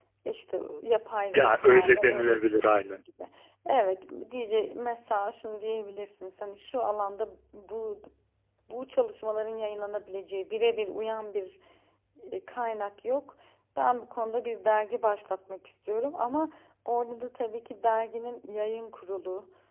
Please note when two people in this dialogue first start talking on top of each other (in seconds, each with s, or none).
1.3 s